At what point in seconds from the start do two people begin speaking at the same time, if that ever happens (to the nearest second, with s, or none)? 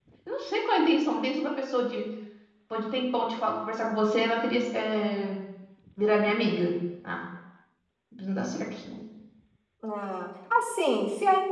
none